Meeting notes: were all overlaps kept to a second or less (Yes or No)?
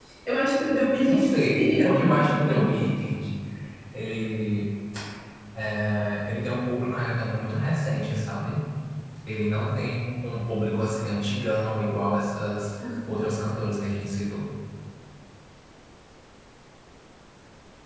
No